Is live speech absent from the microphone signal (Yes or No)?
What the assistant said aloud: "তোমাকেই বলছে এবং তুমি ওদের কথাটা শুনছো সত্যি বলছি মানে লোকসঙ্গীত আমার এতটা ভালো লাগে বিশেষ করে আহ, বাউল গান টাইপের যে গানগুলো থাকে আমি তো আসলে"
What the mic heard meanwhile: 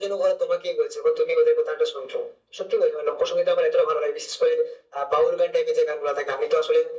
Yes